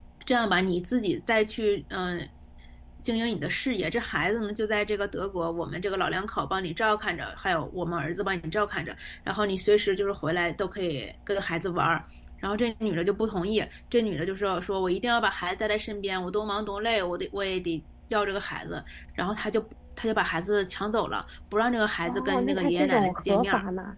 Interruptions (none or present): present